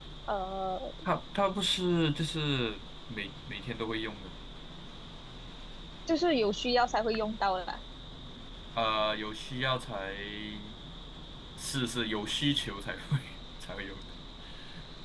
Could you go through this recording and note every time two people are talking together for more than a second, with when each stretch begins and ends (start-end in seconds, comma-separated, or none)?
none